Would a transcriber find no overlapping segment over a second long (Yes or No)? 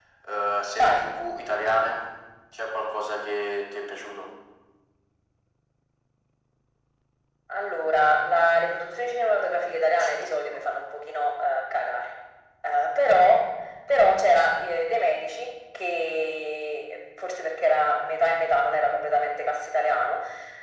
Yes